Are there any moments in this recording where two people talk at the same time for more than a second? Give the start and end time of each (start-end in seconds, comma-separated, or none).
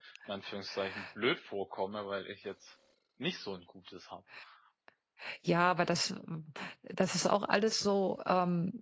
none